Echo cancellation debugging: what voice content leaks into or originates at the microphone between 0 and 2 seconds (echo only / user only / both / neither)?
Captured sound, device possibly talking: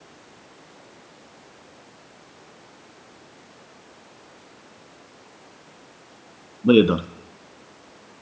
neither